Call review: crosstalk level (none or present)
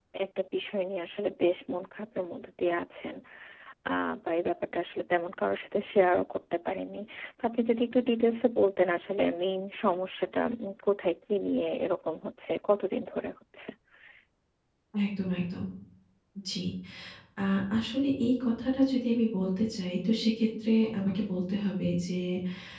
none